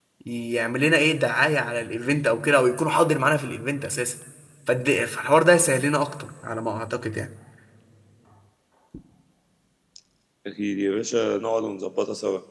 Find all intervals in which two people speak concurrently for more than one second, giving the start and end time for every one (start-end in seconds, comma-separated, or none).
none